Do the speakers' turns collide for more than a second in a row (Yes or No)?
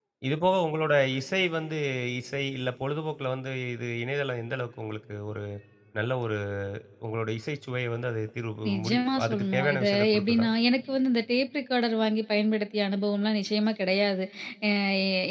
Yes